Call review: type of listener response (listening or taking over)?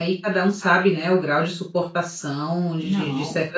listening